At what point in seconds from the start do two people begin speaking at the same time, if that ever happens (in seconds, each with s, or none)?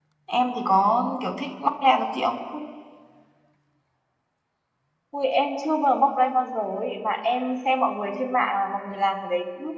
none